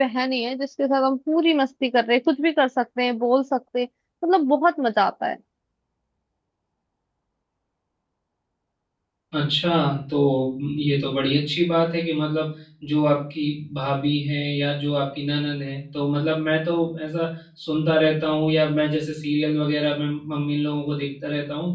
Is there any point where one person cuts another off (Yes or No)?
No